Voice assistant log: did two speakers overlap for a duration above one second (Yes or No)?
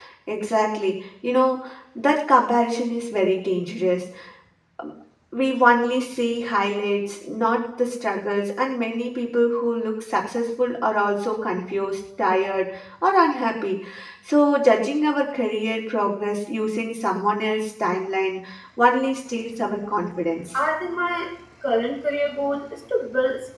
No